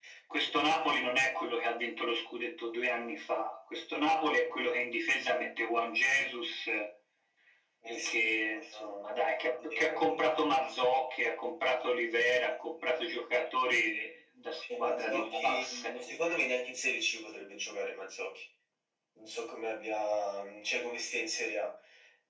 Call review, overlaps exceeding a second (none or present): present